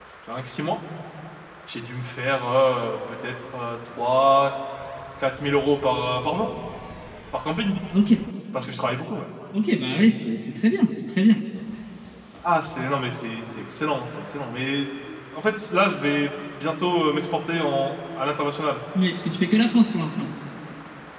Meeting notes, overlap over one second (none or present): none